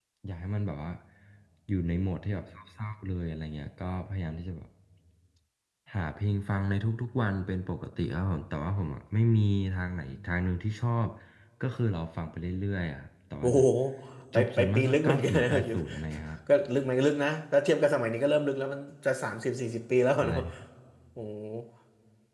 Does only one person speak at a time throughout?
No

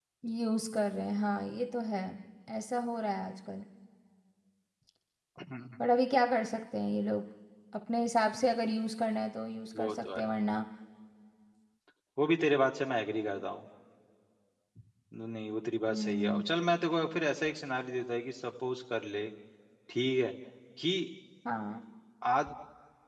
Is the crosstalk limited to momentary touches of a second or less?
Yes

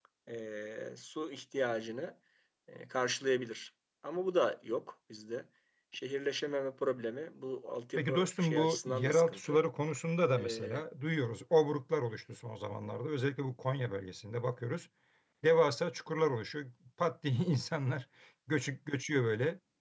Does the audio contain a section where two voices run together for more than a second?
Yes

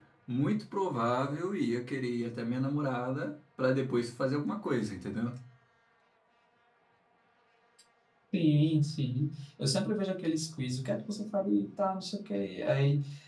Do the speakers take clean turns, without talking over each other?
Yes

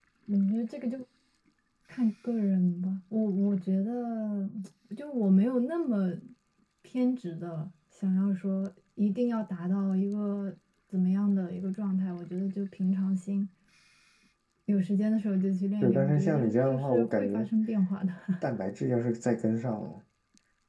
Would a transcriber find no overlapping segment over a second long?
No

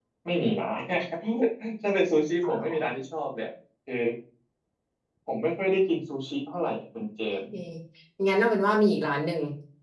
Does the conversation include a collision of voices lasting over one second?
No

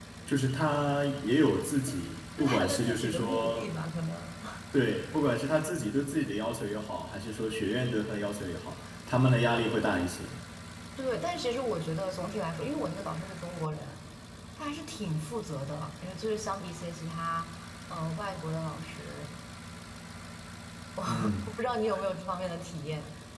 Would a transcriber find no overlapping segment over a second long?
No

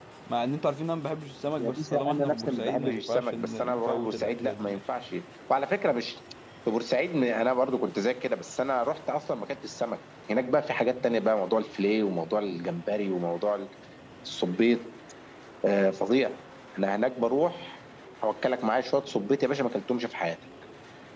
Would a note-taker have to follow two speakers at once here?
Yes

